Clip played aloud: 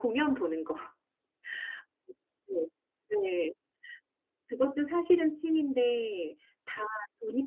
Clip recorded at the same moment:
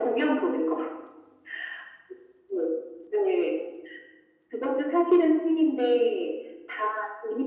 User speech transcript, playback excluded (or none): none